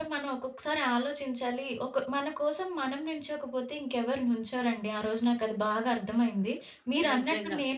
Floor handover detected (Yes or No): No